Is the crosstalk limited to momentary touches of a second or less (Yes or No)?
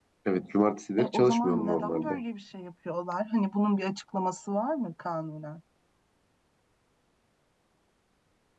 No